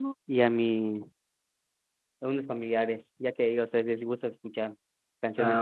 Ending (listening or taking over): taking over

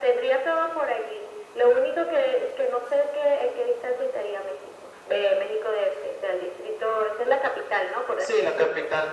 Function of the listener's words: taking over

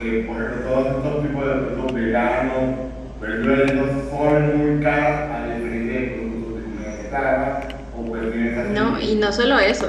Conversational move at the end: taking over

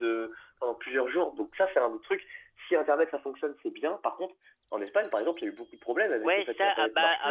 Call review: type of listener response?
taking over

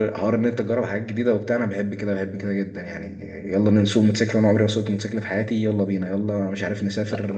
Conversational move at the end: listening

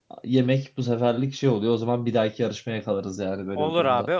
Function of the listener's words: taking over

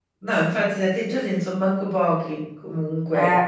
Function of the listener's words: taking over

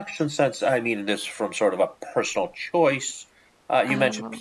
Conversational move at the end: listening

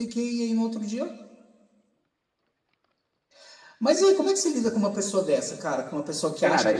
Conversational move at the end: taking over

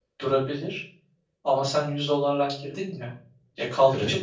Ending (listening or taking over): listening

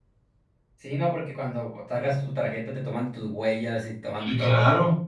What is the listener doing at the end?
taking over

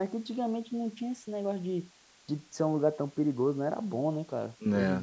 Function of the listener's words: taking over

